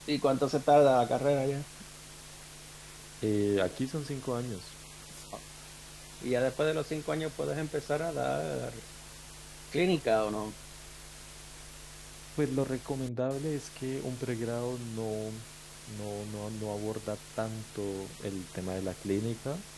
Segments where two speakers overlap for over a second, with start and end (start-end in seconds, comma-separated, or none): none